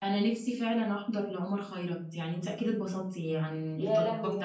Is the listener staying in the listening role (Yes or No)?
No